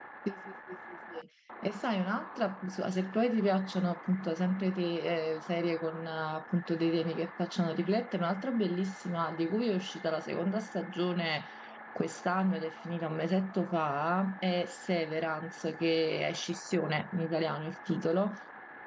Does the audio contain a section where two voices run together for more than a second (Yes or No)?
No